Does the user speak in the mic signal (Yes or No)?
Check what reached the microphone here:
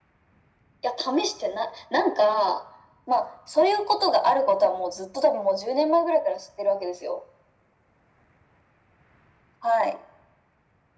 No